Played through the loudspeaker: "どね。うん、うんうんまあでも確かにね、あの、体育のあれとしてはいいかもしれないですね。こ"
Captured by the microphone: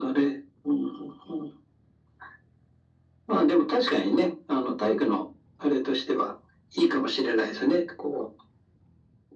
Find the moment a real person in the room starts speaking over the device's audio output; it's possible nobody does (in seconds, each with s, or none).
none